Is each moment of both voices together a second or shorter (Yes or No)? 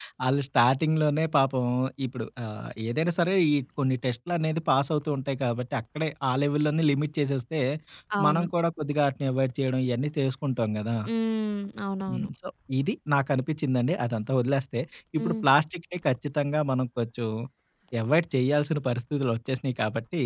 Yes